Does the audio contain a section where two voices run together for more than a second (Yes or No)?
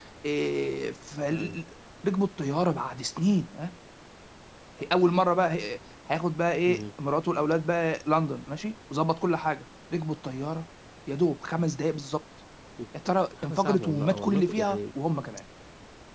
Yes